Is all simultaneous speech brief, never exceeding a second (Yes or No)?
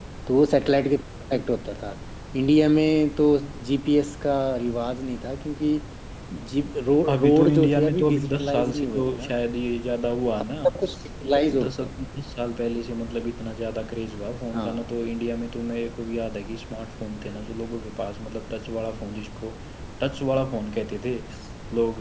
No